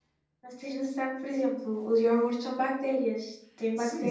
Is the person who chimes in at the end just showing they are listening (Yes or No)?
No